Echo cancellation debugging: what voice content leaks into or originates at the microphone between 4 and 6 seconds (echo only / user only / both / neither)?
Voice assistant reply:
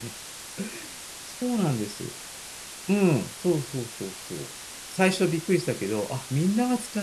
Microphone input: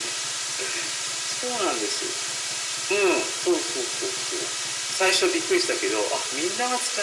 echo only